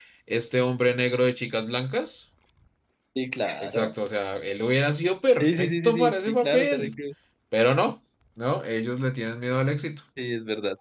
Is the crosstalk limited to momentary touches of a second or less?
No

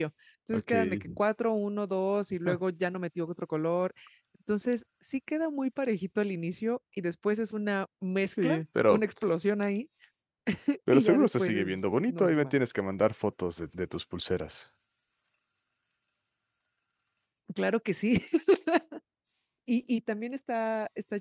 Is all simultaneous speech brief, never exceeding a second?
No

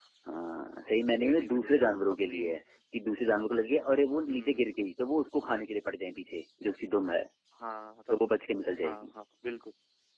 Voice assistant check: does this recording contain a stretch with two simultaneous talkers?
Yes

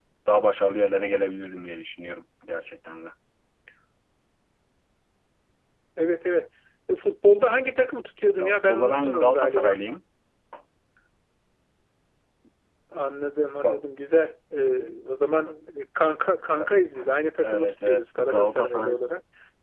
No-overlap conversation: No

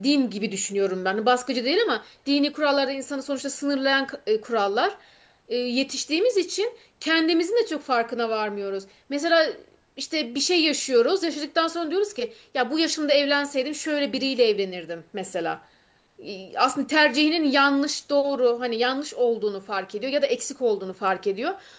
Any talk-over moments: No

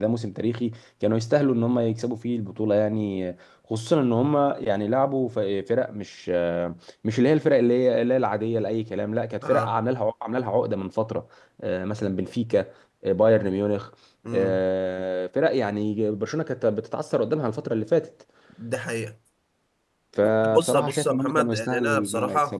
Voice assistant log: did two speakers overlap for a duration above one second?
Yes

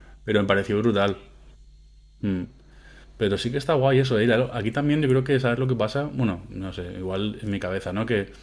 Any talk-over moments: No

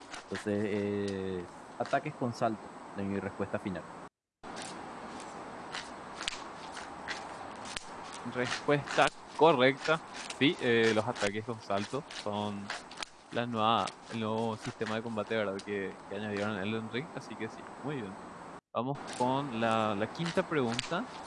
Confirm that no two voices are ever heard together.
Yes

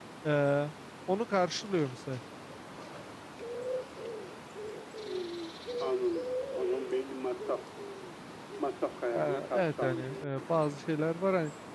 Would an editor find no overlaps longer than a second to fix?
No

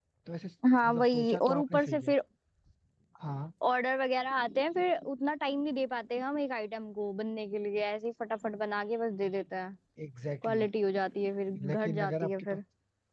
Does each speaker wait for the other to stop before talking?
No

